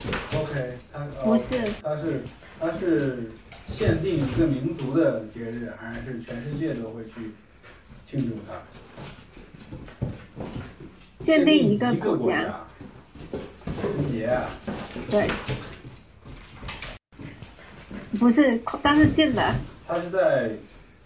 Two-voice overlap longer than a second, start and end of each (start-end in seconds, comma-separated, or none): 11.3-12.5